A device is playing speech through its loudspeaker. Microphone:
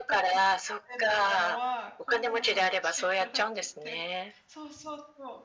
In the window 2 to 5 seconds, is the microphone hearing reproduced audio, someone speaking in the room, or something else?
both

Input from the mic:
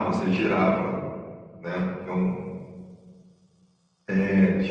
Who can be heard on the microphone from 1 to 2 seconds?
echo only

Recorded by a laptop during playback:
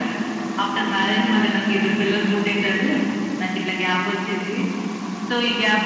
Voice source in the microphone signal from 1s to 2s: echo only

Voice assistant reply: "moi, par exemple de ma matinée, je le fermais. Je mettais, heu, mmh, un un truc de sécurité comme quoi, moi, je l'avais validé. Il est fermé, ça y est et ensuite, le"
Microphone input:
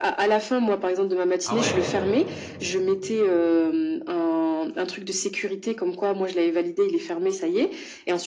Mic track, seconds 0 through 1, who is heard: echo only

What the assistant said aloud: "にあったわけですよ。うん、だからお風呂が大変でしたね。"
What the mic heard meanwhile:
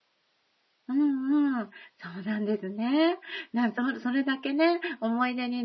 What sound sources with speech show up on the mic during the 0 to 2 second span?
user only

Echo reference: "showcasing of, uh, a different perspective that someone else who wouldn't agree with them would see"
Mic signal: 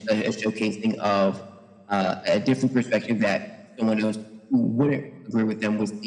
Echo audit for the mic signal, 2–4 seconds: echo only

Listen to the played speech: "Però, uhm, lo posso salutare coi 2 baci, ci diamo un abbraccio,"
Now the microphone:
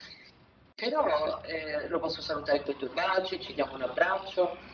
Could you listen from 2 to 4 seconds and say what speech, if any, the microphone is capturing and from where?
echo only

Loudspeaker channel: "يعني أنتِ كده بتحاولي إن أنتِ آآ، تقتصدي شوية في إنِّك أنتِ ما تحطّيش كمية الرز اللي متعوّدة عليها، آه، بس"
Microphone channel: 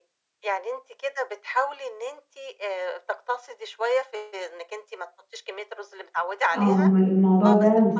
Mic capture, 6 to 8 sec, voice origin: both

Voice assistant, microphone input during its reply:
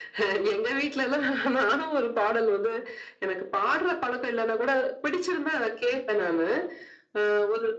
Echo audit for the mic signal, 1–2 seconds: echo only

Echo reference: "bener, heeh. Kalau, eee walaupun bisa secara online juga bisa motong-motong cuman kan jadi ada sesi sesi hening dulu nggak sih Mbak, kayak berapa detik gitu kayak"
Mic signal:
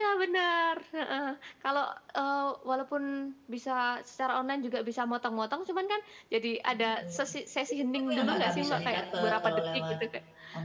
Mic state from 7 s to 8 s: both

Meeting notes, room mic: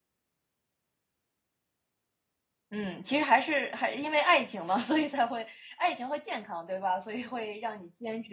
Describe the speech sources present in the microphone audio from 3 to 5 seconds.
user only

